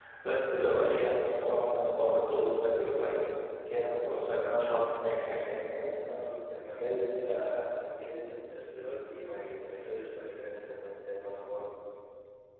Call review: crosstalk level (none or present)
none